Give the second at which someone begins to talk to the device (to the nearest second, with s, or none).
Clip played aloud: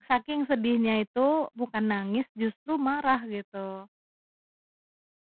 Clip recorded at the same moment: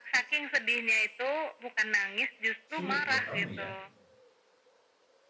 3 s